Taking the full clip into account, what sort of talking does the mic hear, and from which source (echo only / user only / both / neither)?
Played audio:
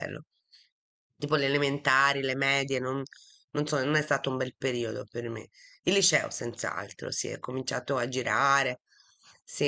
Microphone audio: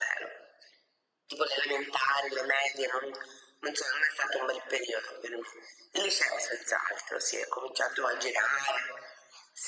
echo only